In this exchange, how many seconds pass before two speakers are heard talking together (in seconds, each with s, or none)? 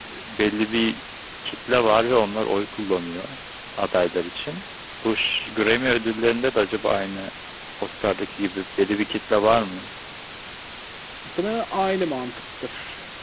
none